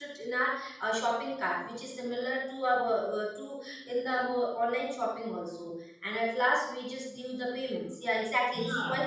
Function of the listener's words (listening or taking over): taking over